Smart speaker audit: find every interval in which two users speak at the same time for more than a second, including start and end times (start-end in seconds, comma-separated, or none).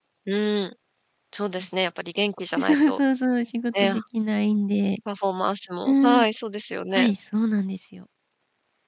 none